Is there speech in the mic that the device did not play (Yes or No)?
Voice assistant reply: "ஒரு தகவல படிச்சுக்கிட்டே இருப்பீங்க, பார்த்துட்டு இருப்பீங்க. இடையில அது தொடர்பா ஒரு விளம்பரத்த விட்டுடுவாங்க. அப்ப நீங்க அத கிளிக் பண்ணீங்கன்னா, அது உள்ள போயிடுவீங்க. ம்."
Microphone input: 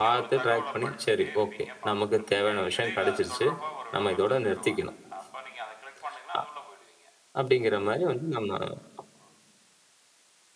Yes